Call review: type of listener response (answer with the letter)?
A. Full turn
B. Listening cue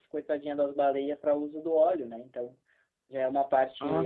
A